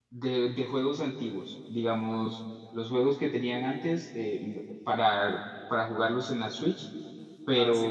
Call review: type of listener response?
taking over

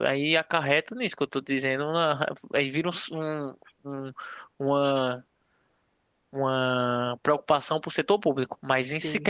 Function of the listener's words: listening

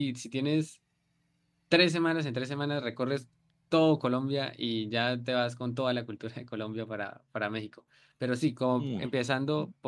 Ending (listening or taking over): listening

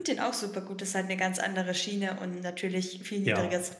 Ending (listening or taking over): listening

